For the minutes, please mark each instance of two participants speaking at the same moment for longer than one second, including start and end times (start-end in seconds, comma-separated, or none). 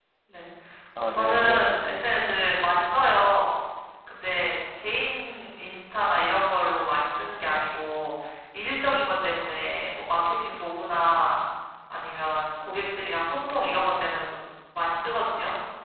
1.0-2.9